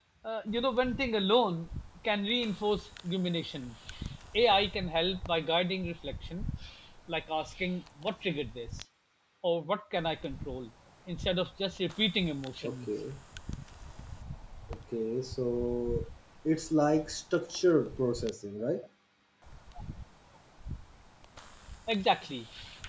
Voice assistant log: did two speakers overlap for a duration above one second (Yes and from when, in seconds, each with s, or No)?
No